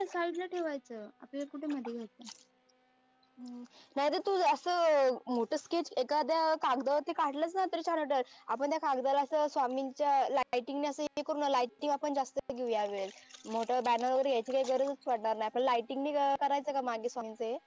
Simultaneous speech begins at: none

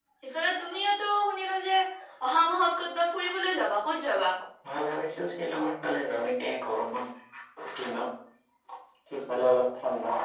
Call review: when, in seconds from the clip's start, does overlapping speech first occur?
none

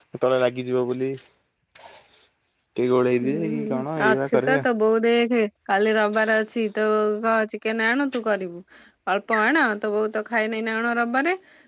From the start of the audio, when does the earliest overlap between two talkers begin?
3.2 s

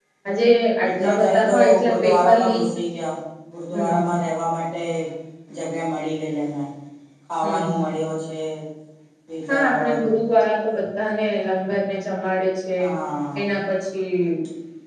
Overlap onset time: 0.8 s

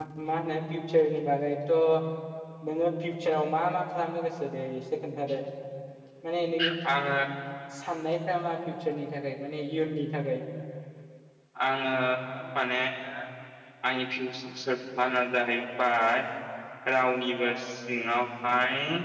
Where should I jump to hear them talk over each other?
none

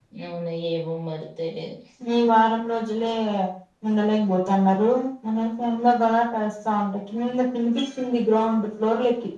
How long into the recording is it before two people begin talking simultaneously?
none

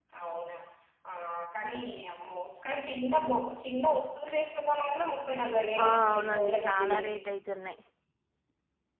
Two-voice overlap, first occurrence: 5.8 s

